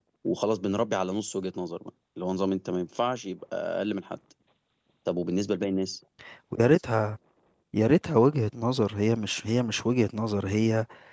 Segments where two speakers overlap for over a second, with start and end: none

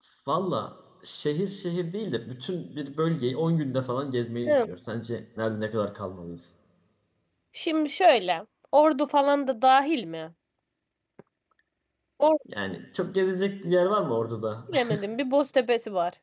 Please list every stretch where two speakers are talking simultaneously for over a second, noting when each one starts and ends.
none

